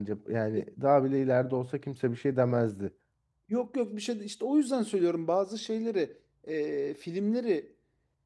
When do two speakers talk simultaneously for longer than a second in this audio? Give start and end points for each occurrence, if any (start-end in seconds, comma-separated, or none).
none